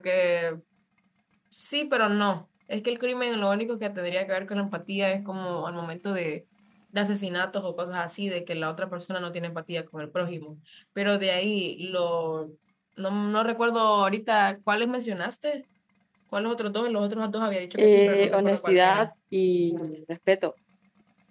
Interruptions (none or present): present